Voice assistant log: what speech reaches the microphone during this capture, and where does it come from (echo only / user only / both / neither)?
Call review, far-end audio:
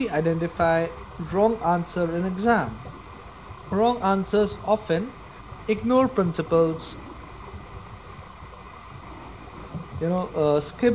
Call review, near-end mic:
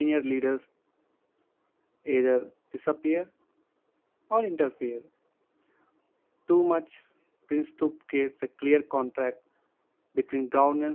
user only